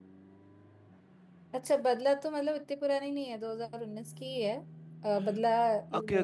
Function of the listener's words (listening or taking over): taking over